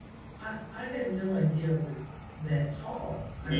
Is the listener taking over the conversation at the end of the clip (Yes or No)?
No